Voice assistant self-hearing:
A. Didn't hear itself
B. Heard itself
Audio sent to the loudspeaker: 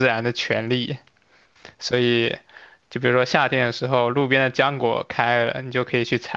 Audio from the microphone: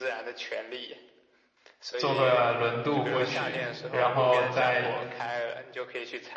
B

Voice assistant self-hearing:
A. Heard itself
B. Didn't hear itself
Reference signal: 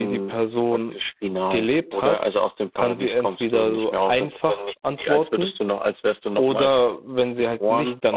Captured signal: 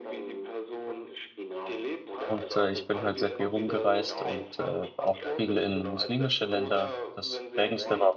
A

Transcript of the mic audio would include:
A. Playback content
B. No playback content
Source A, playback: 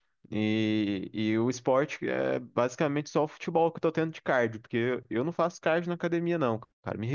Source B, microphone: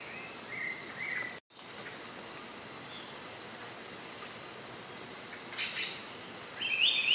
B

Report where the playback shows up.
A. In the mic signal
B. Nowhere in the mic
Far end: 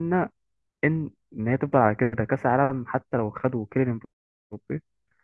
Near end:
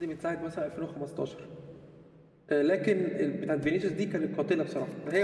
B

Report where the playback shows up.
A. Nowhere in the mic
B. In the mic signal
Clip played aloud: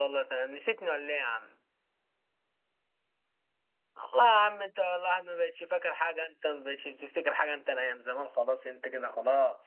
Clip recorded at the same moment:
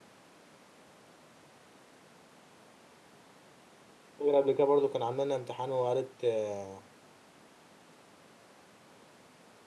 A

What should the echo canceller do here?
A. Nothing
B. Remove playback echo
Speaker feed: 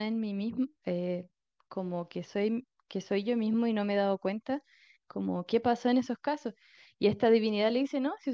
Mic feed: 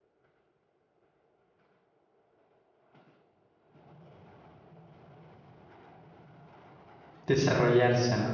A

